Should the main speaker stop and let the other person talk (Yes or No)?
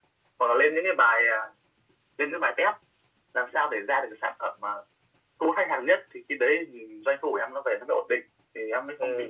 Yes